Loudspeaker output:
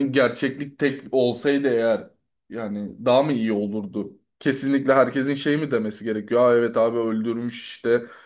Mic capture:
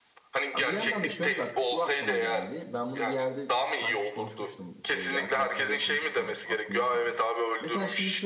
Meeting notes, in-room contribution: present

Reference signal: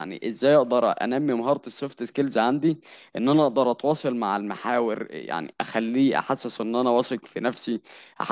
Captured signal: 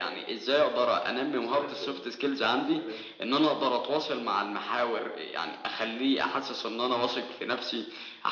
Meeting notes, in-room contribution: present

